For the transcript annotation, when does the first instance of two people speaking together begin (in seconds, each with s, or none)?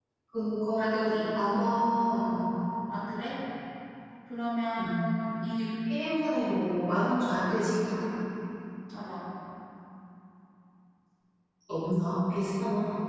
0.8 s